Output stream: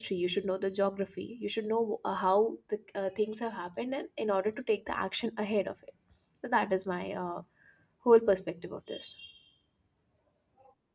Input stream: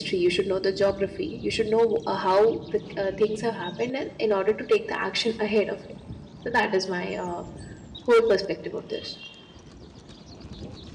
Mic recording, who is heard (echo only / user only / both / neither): echo only